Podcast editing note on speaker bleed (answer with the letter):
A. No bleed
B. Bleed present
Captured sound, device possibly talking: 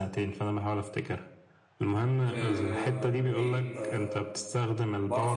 B